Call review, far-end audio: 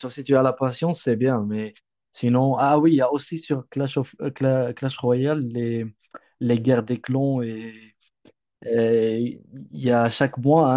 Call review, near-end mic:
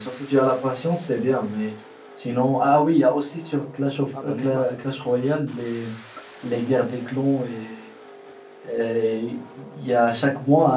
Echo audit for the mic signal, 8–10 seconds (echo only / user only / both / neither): echo only